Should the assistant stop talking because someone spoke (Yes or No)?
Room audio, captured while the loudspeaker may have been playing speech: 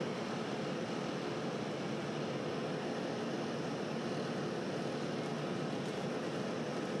No